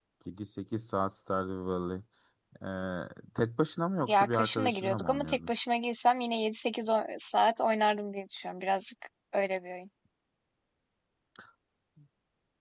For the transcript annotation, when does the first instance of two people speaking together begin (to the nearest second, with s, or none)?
4 s